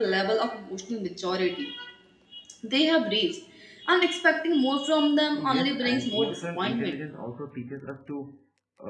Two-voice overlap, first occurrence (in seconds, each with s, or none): 5.3 s